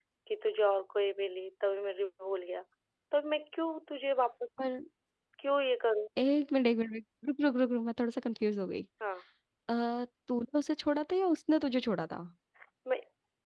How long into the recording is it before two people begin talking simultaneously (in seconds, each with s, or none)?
none